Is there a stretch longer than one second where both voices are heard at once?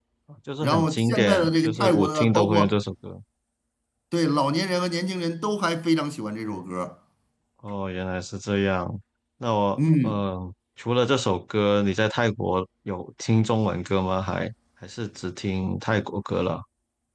Yes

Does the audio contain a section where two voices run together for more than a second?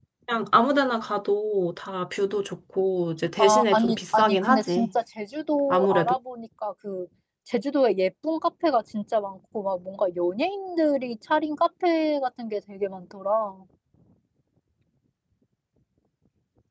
Yes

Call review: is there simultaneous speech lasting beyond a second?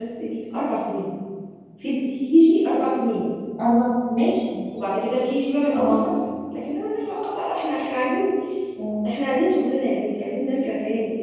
No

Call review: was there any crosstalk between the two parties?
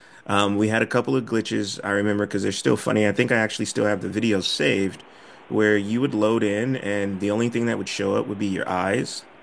No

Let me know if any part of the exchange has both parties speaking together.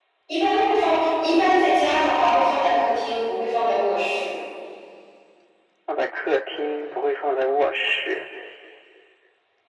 No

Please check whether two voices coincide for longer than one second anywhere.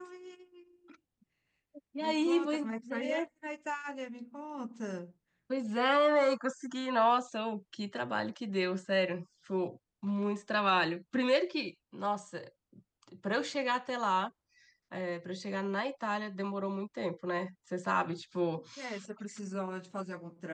Yes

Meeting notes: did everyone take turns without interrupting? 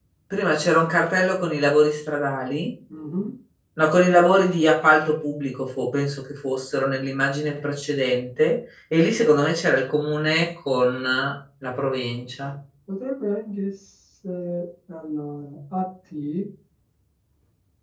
Yes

